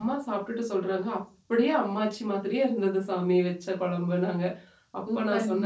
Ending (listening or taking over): listening